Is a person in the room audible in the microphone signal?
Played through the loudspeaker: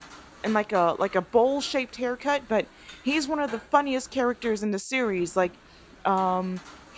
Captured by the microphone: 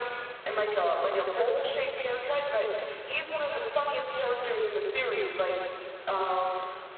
No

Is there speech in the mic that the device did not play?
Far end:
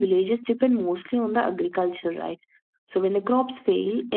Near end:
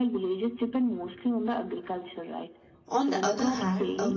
Yes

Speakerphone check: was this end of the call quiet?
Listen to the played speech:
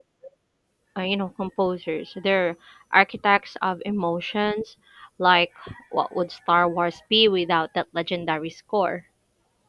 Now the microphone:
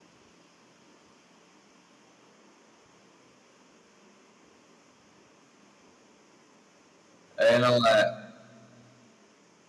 No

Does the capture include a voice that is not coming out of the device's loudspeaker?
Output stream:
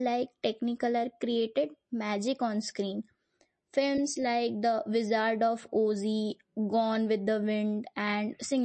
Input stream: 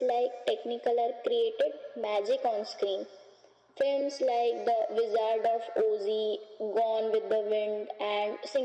No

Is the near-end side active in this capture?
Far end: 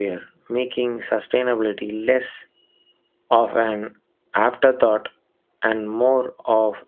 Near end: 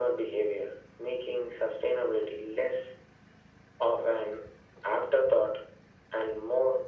No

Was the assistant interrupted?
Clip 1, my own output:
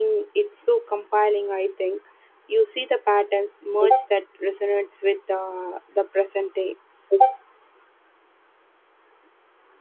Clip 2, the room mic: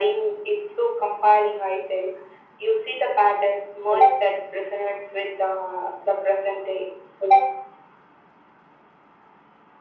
No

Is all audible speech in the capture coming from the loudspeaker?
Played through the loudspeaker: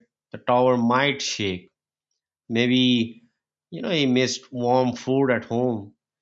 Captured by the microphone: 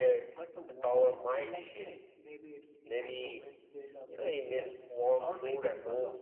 No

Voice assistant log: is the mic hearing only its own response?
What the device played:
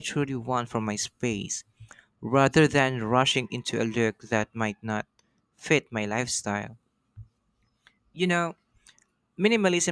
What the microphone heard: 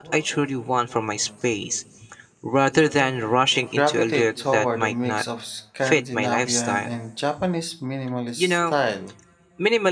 No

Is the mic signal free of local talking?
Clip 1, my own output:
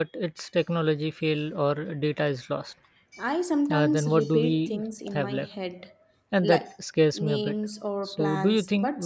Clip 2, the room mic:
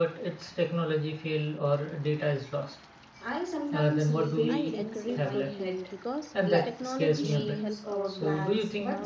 No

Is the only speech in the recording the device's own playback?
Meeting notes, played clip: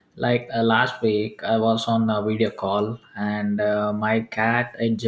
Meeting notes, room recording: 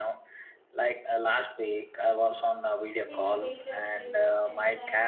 No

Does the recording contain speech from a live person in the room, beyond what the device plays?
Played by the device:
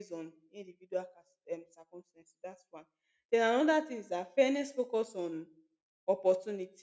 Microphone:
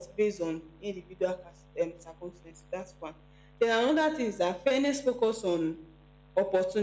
No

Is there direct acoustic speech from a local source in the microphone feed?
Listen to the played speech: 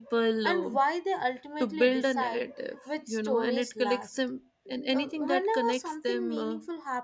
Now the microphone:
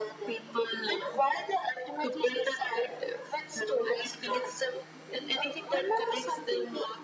No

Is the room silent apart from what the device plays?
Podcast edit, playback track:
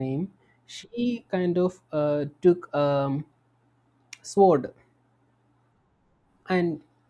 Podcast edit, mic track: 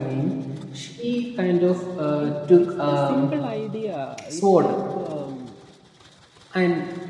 No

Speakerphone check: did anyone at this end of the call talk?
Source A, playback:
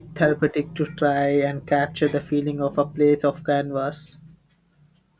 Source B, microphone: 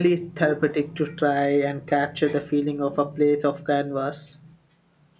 No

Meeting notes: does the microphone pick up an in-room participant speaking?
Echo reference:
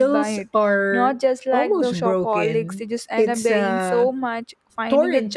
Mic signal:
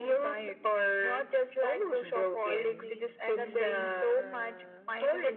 Yes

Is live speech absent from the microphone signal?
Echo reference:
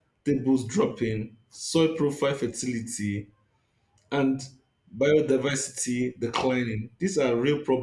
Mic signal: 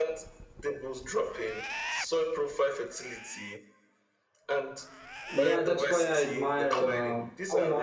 No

